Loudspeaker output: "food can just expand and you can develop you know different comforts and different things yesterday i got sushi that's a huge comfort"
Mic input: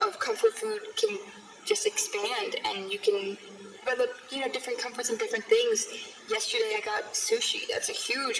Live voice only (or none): none